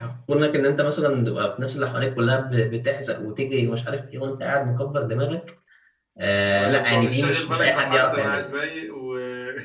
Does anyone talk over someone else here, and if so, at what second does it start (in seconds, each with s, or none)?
6.5 s